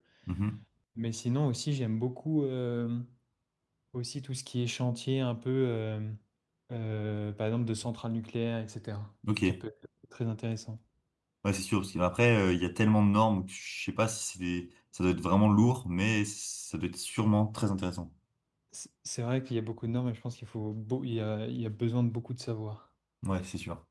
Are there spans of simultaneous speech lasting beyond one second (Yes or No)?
No